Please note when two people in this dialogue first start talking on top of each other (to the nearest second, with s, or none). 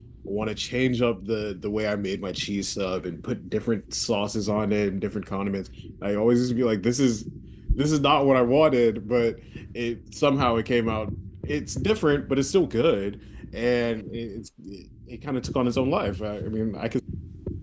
none